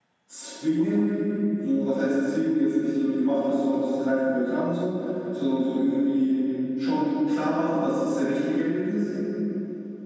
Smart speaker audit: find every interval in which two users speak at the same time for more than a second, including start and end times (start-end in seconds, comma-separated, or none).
none